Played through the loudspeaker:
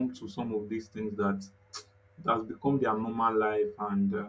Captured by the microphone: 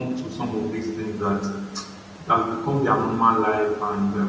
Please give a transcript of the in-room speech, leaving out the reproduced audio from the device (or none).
none